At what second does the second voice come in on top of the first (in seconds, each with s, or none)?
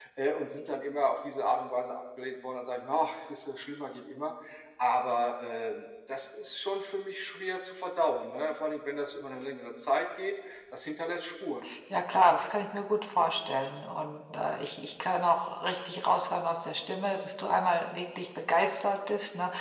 none